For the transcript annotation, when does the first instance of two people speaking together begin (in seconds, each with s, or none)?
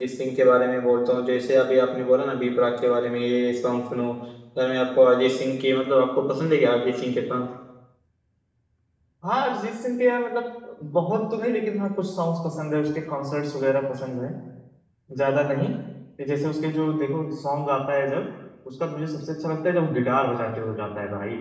none